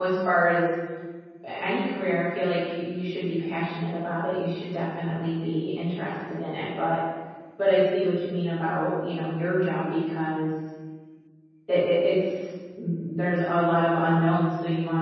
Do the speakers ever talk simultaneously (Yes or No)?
No